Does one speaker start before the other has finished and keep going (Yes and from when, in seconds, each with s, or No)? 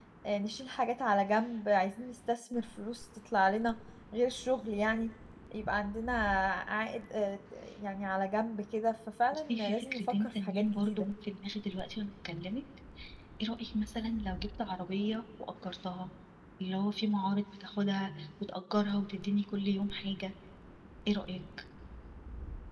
Yes, from 9.3 s